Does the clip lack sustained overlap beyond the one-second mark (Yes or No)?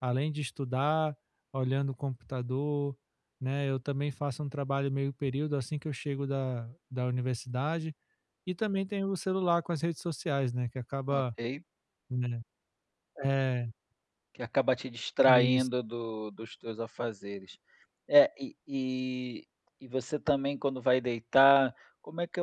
Yes